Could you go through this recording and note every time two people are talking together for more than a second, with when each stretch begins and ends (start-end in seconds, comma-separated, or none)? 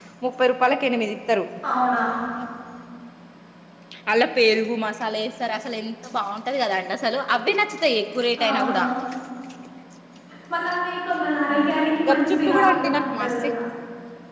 12.1-13.3